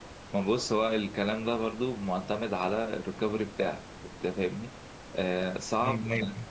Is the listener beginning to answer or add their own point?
No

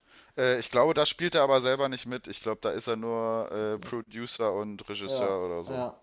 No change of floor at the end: No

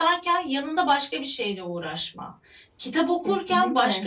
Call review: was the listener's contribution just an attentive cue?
Yes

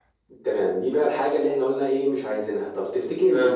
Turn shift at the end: No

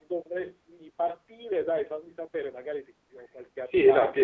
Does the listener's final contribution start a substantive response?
Yes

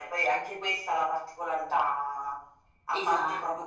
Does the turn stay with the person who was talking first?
Yes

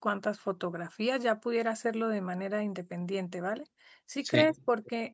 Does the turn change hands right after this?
No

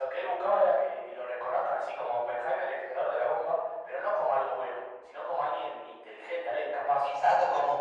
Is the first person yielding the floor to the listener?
Yes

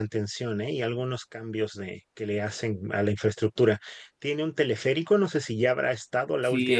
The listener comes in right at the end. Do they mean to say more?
Yes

